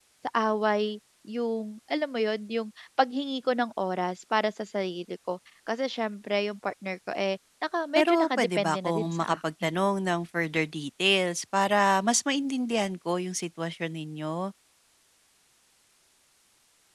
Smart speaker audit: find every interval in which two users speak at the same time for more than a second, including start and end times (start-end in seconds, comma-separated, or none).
8.0-9.7